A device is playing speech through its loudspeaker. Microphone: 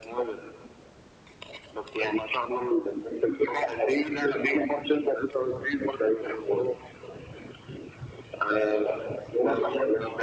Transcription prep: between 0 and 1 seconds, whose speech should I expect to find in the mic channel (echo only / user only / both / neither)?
echo only